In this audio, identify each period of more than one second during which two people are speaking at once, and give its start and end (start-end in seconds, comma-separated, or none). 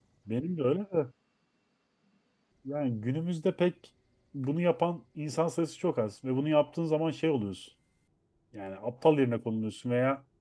none